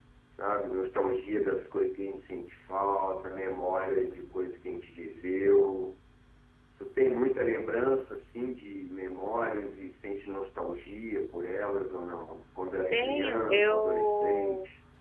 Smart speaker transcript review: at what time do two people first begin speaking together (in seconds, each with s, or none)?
12.9 s